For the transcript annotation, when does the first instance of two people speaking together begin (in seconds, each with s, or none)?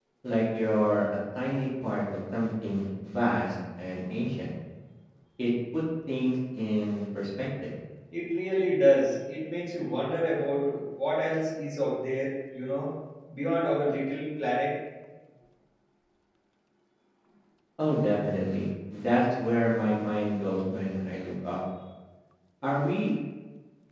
none